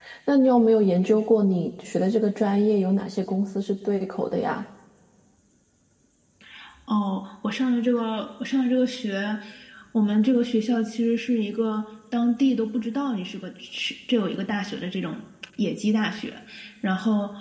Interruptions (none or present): none